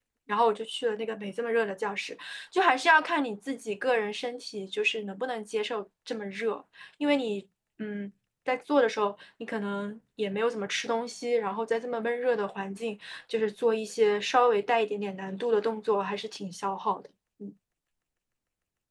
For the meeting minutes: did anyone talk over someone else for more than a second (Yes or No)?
No